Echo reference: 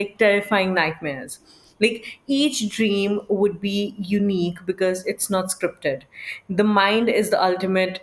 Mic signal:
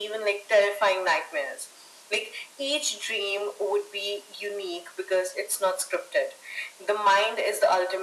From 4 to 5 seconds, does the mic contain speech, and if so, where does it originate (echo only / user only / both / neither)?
echo only